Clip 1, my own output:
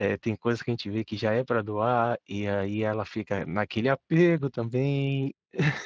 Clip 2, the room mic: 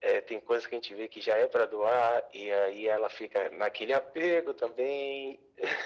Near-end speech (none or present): none